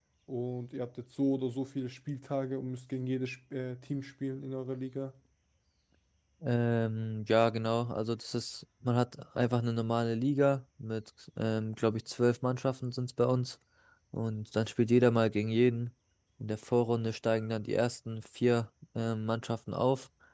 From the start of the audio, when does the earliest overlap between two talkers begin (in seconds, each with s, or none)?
none